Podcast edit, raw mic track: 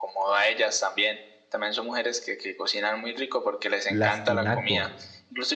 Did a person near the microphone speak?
Yes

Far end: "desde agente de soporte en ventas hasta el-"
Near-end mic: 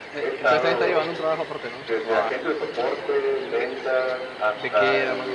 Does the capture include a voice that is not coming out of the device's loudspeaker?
Yes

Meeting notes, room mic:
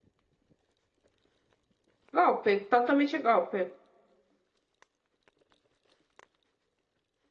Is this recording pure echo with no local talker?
No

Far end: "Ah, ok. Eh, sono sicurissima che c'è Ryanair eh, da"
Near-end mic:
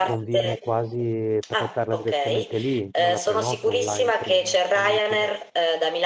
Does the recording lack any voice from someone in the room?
No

